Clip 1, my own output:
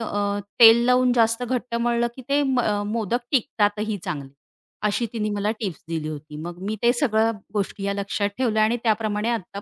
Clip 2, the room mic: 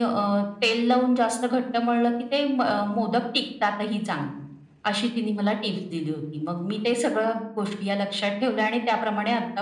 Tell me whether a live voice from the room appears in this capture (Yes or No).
No